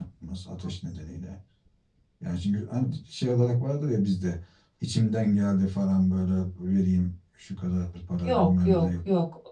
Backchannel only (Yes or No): No